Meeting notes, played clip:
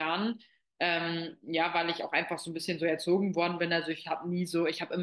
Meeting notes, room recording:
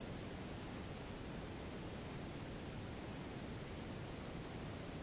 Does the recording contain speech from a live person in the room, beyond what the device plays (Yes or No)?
No